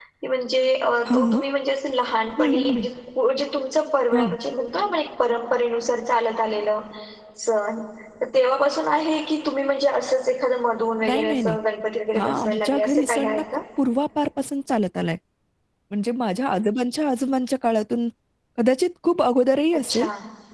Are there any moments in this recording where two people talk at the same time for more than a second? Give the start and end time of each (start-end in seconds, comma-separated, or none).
12.2-13.4